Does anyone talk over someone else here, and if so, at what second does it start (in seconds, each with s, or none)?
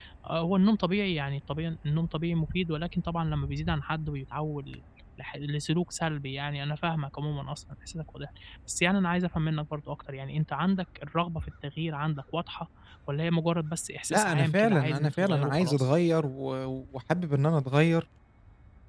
14.1 s